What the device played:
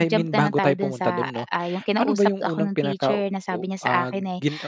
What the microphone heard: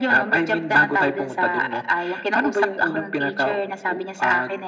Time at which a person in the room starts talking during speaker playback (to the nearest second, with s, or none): none